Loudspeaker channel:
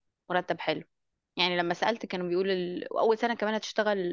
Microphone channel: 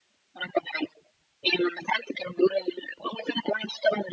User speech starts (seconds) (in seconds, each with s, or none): none